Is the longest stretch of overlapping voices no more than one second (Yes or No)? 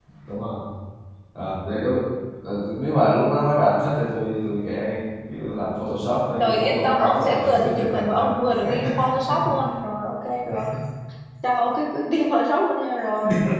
No